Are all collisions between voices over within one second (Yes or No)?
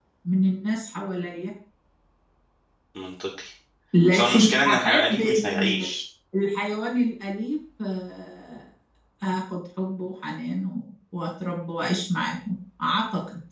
No